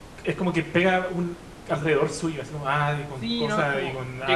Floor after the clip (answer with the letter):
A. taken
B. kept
A